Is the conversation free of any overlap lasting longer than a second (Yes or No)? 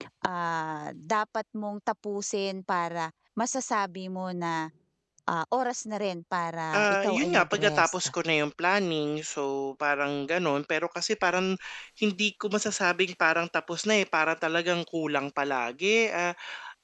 No